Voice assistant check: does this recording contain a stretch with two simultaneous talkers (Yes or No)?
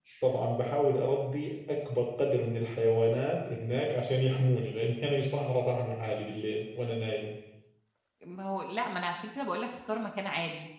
No